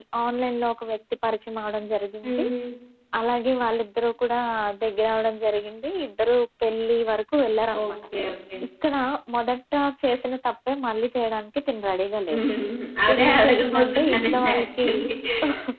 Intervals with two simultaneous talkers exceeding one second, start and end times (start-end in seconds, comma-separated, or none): 13.1-14.9